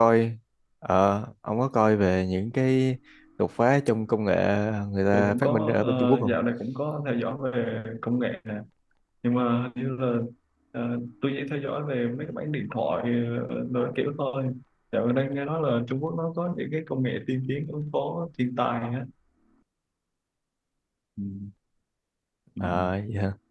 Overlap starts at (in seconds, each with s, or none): 5.1 s